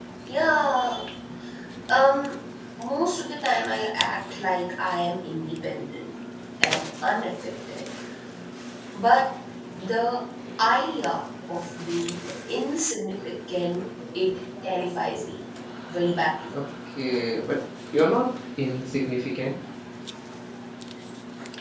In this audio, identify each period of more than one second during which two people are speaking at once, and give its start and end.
none

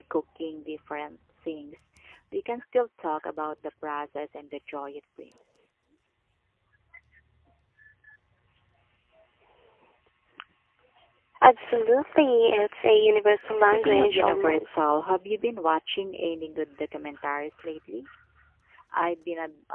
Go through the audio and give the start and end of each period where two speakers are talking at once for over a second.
13.6-14.9

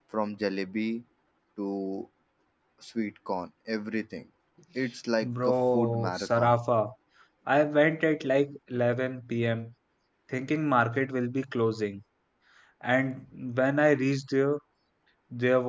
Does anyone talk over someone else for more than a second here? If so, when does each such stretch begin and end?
5.2-6.6

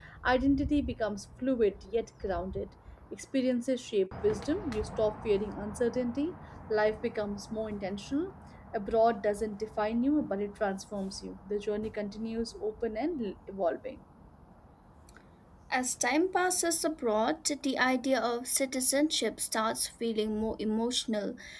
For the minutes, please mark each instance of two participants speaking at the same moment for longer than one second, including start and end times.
none

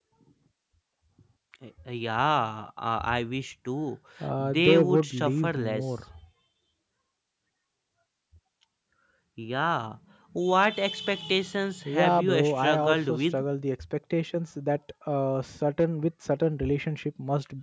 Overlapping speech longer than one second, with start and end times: 4.4-5.8, 11.8-13.4

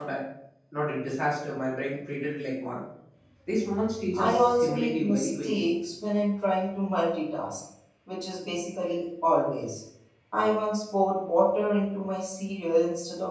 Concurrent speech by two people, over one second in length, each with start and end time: 4.1-5.7

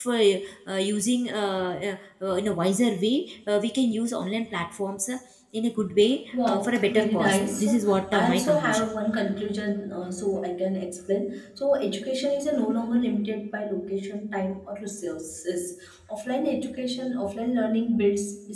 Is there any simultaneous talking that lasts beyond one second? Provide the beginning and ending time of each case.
6.5-8.9

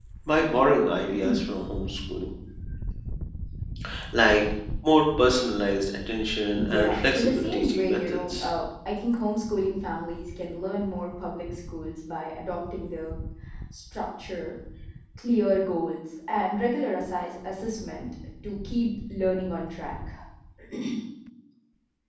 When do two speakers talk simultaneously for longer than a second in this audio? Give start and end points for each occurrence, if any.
6.6-8.5

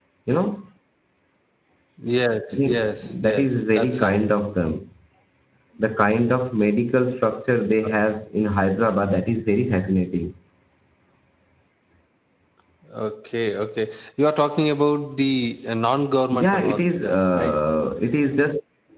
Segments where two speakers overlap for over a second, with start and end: 2.6-4.2, 16.3-17.6

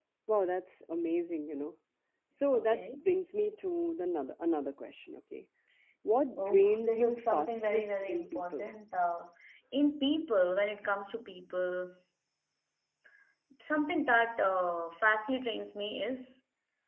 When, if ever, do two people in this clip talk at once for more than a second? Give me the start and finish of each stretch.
6.5-8.7

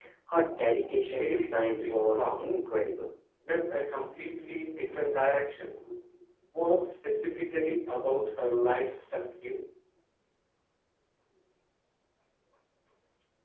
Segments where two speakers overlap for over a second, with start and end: 1.1-2.5

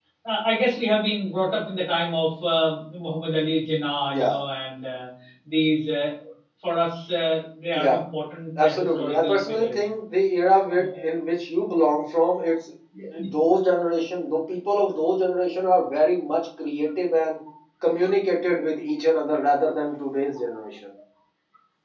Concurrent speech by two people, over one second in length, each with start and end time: 8.6-9.8

